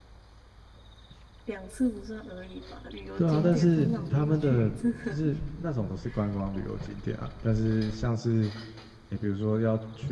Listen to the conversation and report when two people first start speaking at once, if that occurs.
3.2 s

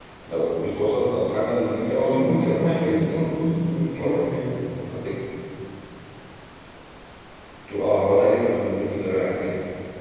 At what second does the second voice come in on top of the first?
1.9 s

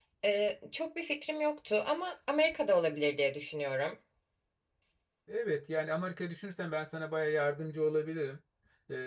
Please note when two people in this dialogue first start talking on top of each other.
none

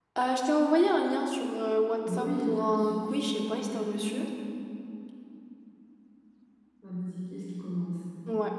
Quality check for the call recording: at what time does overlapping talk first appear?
2.0 s

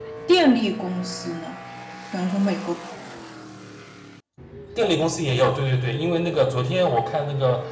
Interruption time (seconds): none

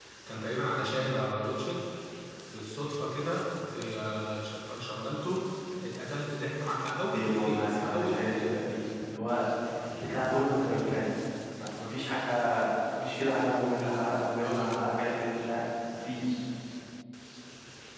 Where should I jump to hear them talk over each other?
7.1 s

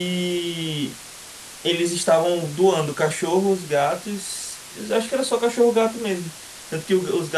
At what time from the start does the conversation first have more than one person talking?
none

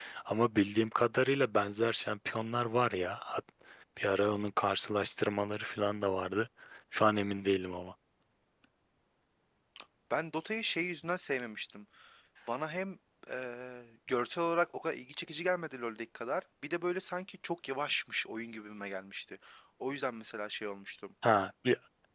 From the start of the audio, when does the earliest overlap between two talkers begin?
none

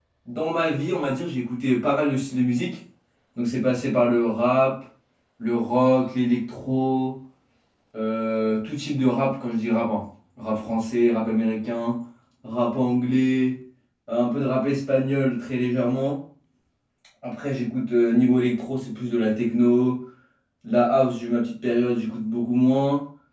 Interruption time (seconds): none

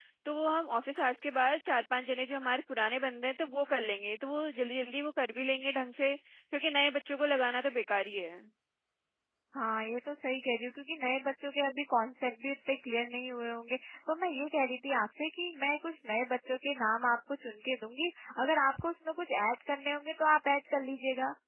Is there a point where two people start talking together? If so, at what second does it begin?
none

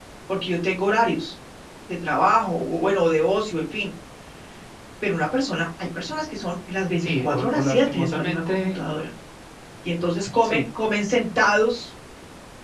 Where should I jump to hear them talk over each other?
7.0 s

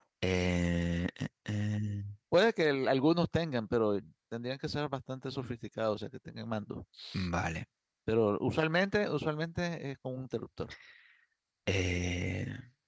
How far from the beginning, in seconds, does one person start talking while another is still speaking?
none

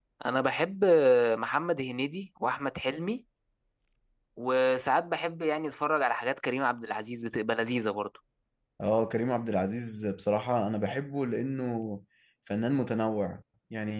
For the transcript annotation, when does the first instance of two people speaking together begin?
none

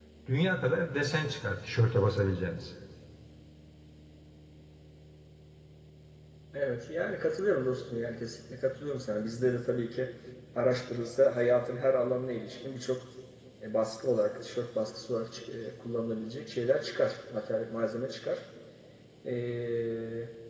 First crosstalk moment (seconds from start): none

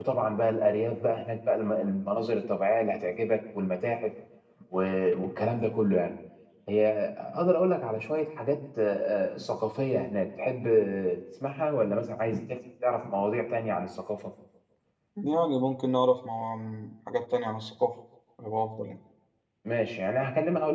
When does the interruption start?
none

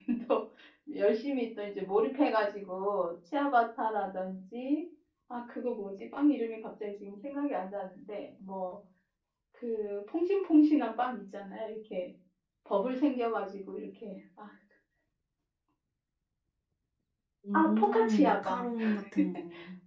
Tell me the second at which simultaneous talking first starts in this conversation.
17.5 s

